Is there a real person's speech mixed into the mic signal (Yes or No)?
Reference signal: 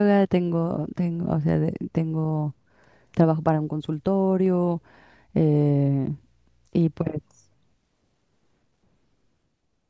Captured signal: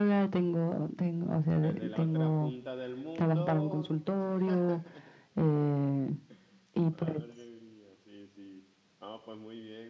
Yes